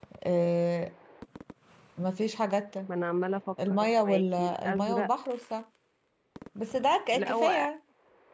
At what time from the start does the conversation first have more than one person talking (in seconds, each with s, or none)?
3.7 s